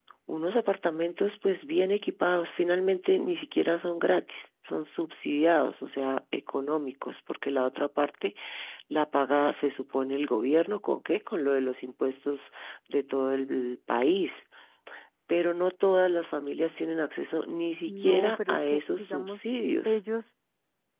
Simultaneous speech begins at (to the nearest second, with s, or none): 18 s